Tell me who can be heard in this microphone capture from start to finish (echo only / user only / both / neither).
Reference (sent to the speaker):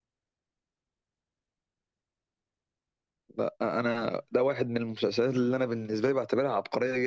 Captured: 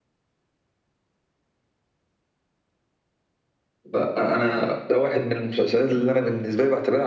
echo only